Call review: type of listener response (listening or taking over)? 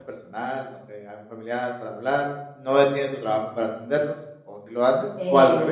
taking over